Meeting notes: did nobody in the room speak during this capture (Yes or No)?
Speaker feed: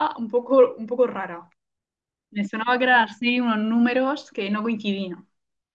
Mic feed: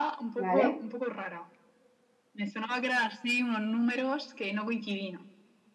No